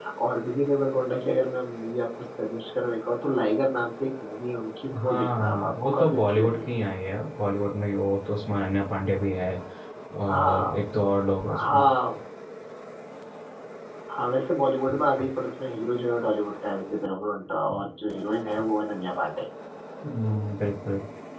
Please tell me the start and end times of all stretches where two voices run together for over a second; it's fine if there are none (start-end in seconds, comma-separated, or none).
5.0-6.8